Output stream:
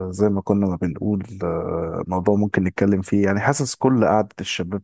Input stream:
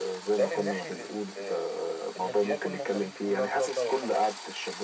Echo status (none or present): present